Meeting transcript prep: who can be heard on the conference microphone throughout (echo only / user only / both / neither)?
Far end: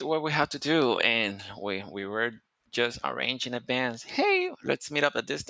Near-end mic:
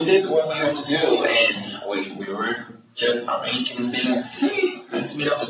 echo only